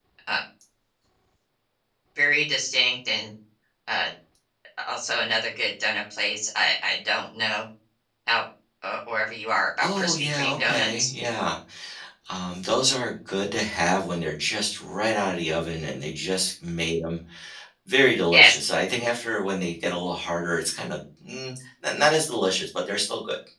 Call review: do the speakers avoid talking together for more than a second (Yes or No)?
No